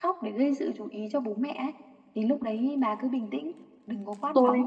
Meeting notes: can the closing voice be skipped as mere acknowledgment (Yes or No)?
No